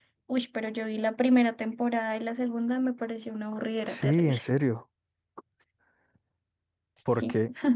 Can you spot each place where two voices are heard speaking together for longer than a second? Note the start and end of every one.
none

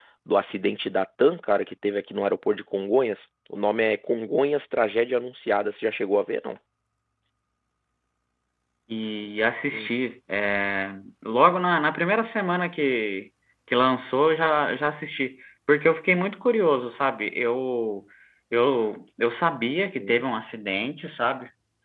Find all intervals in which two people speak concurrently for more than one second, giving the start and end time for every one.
none

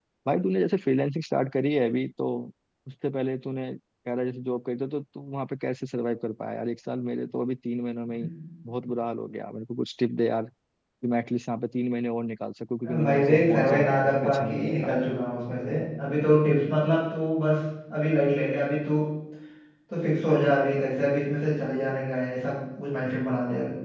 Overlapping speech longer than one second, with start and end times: 12.8-14.9

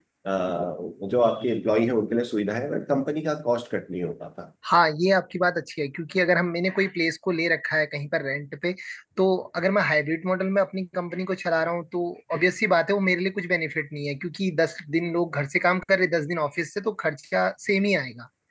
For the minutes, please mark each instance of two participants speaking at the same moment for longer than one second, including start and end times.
none

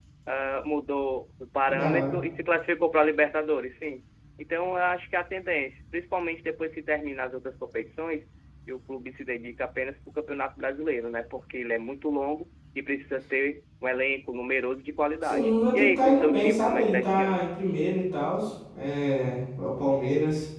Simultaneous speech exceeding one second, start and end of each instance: 15.2-17.4

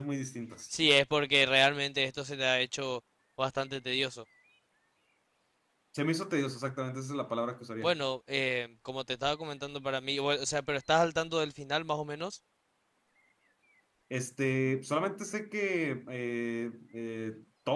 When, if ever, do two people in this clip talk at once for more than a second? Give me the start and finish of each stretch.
none

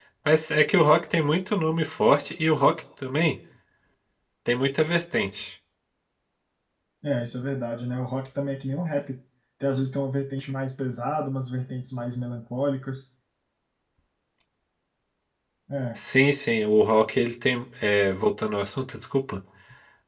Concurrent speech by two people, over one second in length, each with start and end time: none

